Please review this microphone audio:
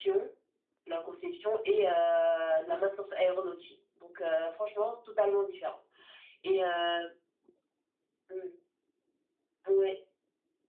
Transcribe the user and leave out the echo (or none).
none